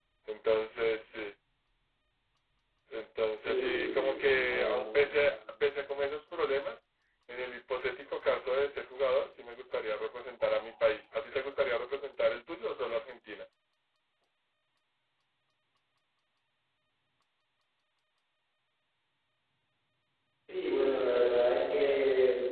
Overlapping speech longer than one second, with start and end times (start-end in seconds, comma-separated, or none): 3.3-4.9